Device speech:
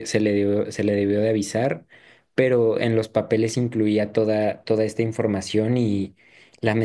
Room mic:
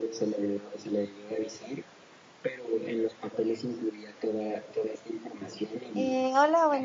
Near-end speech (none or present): present